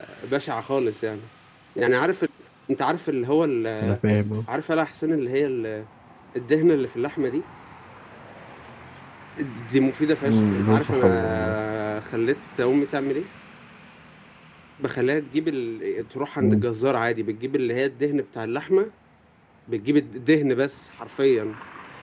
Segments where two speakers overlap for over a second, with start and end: 10.2-11.5

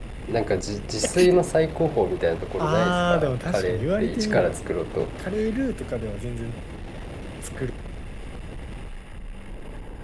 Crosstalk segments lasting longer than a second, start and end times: 2.6-4.6

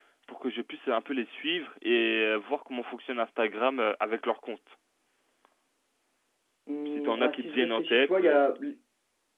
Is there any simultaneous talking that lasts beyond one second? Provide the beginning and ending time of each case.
6.9-8.4

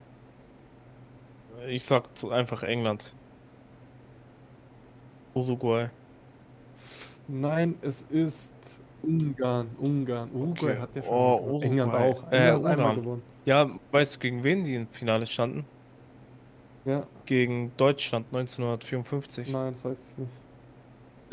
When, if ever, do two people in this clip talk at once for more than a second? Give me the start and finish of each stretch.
10.4-13.0

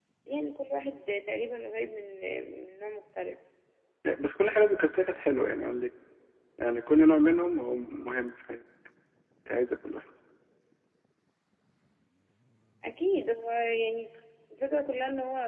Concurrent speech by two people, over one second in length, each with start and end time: none

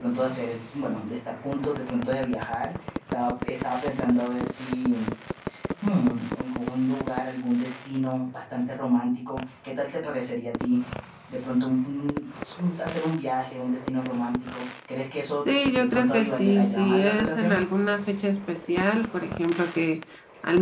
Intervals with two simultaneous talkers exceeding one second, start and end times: 15.7-17.6

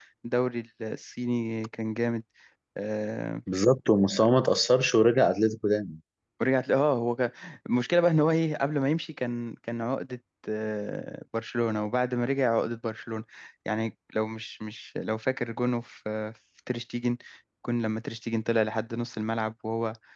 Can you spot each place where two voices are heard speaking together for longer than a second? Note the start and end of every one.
none

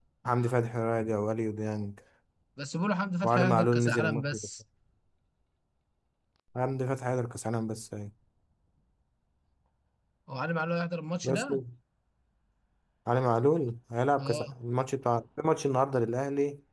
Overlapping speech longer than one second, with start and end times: 3.2-4.5

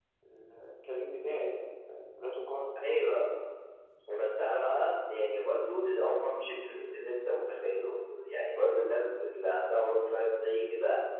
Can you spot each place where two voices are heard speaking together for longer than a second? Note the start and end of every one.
none

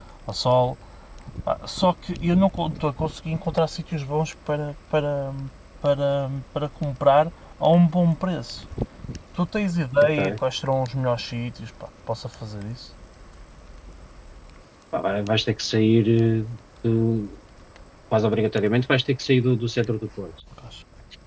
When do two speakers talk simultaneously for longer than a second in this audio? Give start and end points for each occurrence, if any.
none

